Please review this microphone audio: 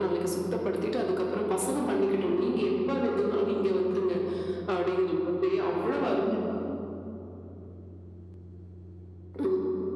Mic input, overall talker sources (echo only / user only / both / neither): echo only